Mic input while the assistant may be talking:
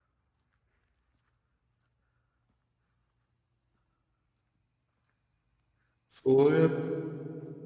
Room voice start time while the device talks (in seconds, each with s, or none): 6.2 s